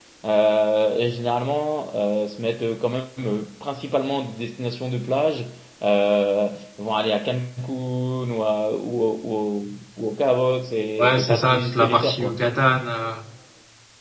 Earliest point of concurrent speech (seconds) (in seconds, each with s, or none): 11.0 s